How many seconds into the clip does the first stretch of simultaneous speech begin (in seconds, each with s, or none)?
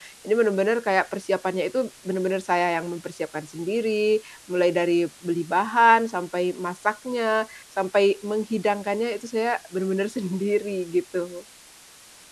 none